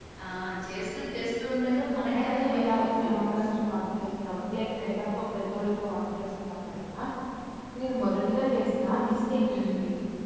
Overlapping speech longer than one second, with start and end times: 2.2-3.5

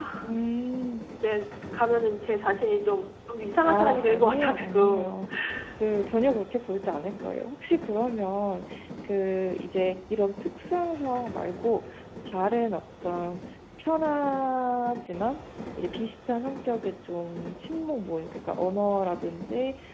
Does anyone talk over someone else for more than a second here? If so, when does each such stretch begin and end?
3.6-5.1

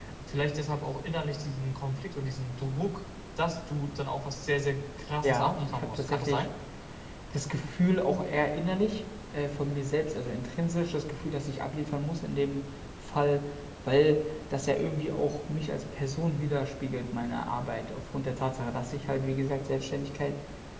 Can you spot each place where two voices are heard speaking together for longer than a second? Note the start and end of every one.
5.2-6.4

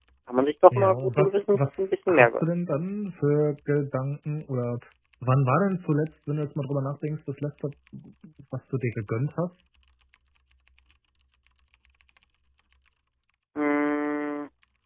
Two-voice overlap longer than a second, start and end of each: 0.7-2.5

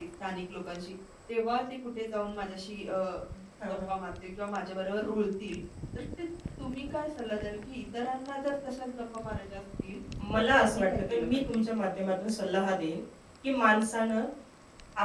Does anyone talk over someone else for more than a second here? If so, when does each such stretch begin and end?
10.3-11.6

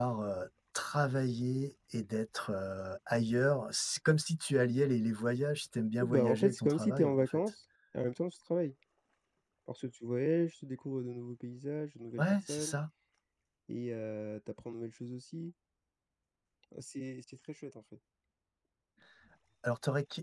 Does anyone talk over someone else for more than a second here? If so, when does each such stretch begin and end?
6.0-7.4

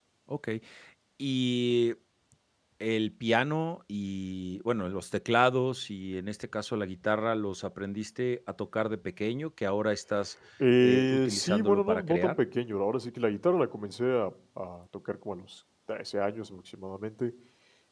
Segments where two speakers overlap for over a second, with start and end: 10.8-12.4

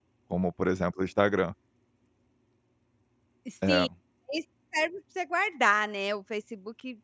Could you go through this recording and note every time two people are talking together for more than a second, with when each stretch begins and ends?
none

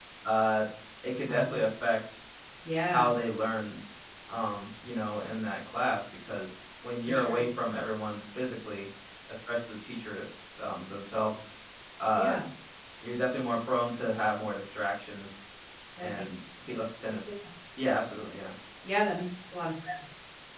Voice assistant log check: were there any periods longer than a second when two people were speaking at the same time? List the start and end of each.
none

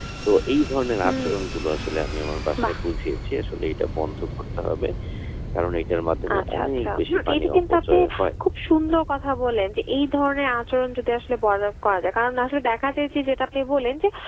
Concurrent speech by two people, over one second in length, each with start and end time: 6.4-8.0

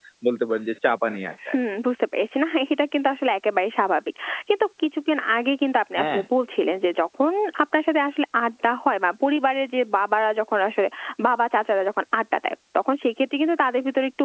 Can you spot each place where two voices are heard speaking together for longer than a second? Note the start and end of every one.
none

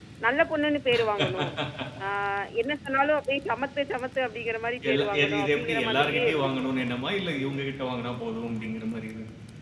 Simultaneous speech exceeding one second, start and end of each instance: 4.9-6.5

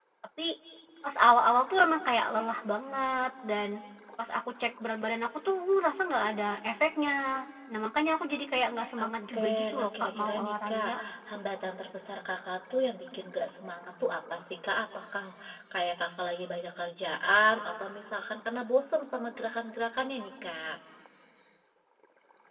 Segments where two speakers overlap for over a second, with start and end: 9.0-10.9

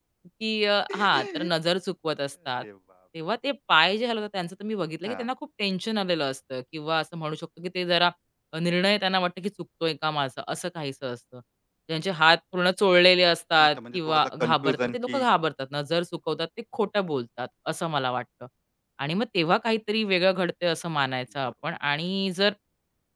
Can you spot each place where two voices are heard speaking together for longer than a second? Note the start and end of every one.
13.6-15.2

